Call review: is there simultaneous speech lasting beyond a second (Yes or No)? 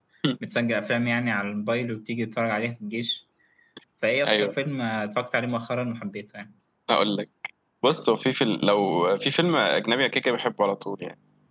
No